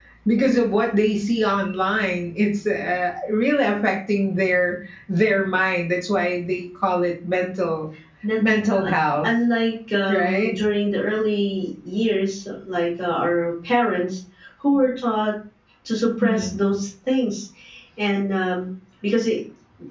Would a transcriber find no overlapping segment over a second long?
Yes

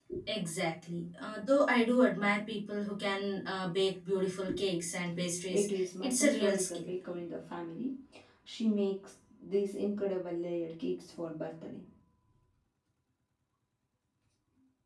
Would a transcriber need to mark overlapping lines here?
Yes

